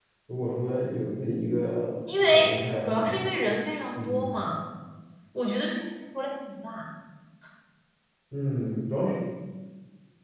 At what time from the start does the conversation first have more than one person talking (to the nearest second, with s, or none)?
2 s